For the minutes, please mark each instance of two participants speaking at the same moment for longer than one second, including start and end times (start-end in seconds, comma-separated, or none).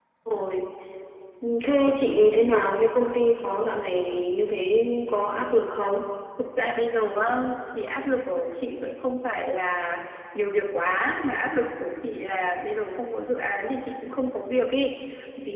none